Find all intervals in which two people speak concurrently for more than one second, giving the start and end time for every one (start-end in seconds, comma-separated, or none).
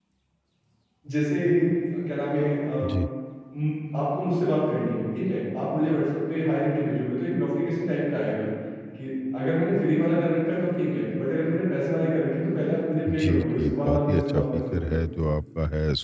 13.1-15.0